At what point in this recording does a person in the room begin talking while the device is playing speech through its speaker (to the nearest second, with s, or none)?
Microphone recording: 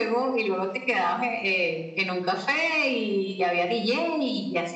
none